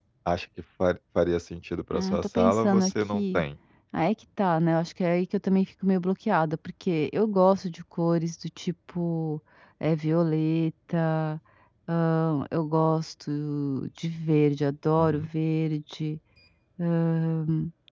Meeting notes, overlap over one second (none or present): present